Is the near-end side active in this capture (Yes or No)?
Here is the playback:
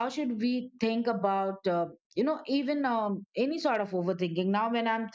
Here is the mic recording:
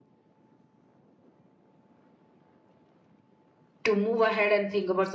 Yes